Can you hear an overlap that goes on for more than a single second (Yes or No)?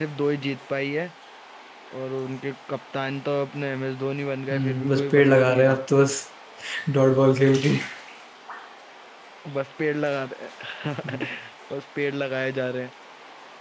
Yes